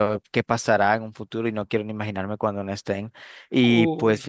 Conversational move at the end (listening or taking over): listening